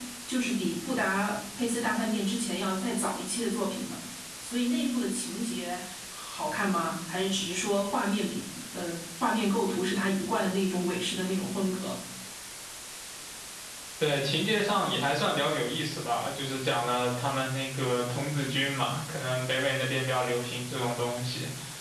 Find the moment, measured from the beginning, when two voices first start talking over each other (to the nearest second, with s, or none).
none